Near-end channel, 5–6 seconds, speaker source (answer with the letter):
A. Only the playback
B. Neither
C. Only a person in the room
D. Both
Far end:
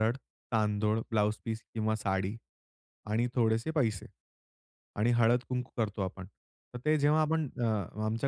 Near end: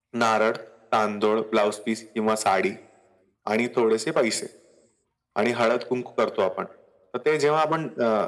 A